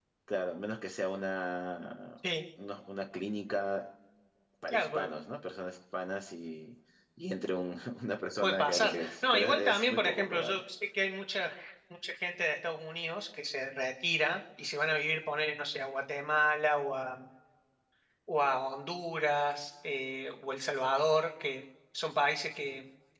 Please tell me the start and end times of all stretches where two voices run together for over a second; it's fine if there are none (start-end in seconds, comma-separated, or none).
8.4-10.6